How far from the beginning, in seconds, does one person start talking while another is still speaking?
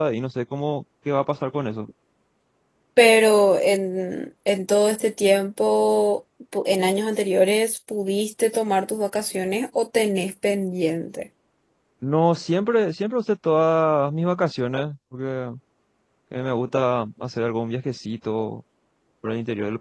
none

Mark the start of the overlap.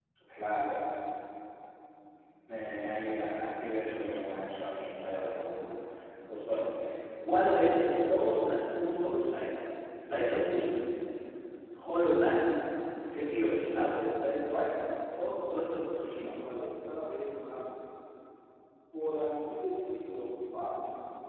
none

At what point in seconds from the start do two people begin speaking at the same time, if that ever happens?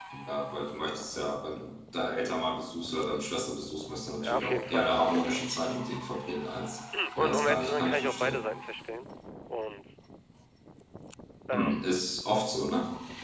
4 s

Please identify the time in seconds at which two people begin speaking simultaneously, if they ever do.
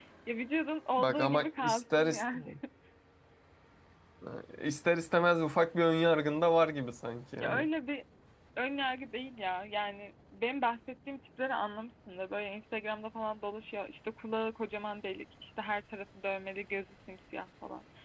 1 s

